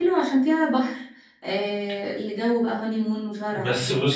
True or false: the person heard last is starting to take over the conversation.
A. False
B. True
B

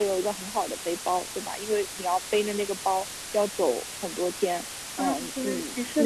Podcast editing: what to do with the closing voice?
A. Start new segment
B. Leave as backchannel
A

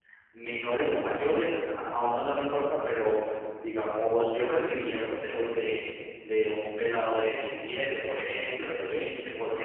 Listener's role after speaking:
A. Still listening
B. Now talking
A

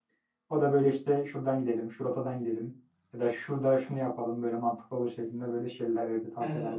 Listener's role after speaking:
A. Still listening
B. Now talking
B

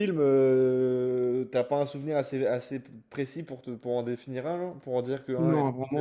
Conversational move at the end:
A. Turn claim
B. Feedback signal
A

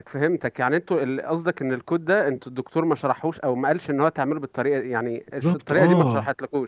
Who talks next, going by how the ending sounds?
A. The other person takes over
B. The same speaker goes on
A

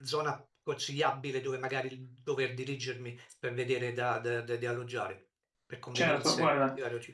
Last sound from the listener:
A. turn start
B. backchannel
A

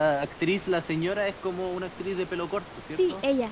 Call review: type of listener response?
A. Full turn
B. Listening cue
A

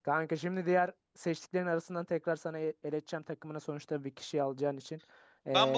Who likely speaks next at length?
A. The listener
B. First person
A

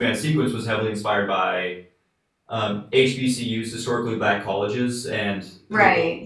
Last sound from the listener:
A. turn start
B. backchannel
B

